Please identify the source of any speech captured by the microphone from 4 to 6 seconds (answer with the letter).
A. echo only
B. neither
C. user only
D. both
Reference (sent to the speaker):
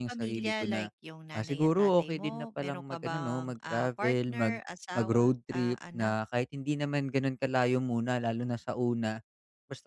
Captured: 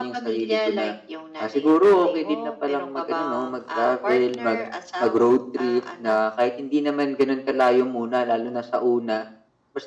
A